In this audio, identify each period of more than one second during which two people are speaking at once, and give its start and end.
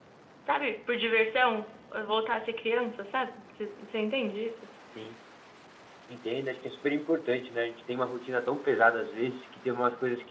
none

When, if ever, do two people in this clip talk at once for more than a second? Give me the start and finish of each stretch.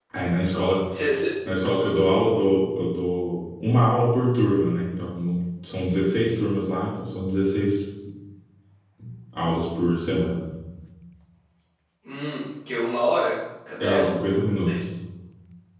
none

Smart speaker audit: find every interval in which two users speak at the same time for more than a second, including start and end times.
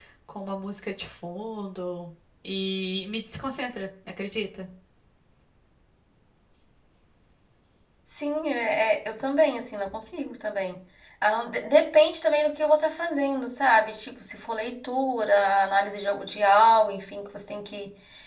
none

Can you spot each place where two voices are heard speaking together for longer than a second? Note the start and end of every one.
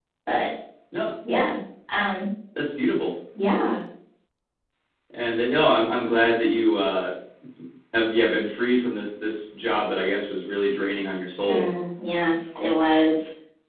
none

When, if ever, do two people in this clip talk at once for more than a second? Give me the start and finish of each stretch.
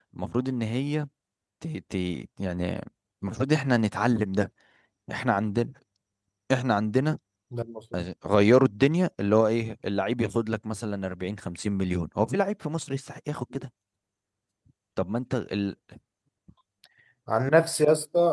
none

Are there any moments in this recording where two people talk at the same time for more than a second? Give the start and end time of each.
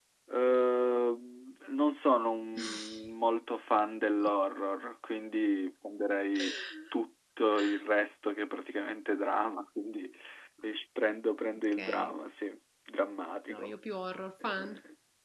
none

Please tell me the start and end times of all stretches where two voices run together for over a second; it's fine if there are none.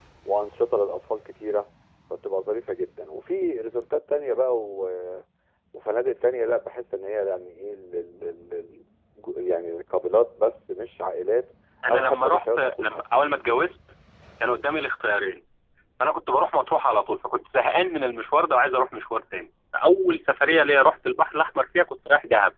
11.9-13.2

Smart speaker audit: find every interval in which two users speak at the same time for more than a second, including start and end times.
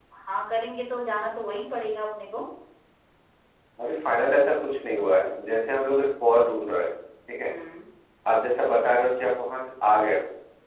none

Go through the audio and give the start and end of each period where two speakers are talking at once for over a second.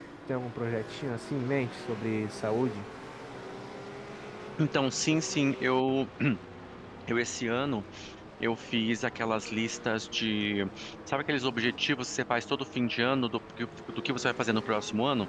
none

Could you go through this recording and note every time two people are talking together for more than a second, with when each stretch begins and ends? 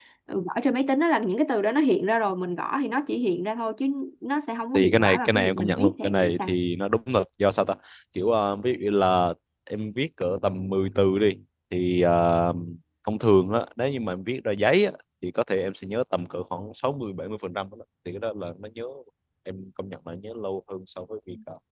4.7-6.5

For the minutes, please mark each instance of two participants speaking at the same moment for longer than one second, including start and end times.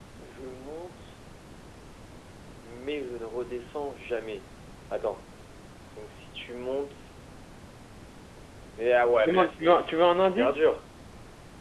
9.2-10.6

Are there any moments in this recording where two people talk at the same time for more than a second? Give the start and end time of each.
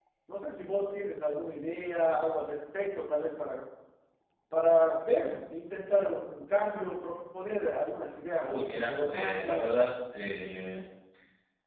8.4-9.6

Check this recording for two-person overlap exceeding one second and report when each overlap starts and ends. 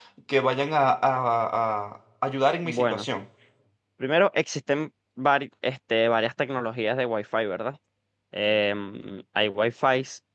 none

